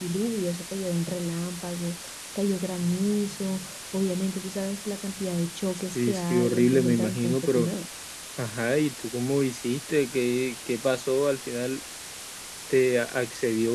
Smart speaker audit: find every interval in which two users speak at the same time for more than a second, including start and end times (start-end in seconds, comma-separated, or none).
6.0-7.7